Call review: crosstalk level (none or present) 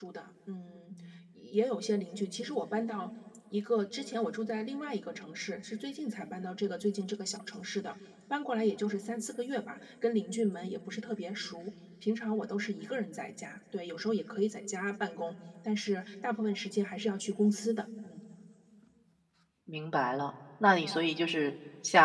none